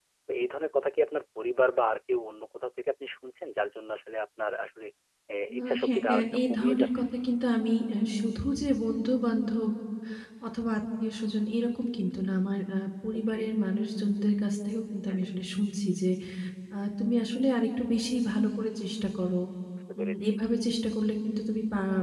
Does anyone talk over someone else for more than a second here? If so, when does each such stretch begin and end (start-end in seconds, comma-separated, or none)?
5.6-7.1